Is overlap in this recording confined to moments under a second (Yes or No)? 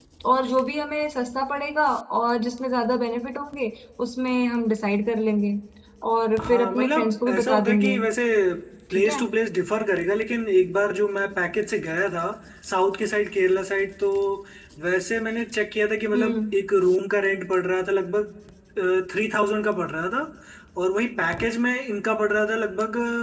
No